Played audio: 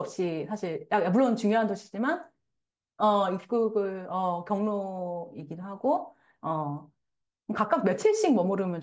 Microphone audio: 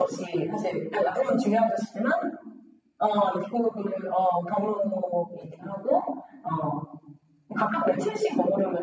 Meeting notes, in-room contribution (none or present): none